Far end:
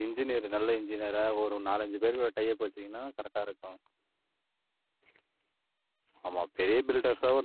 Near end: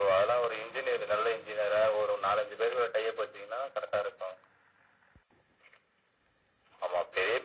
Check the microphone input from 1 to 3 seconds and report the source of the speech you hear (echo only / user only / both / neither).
echo only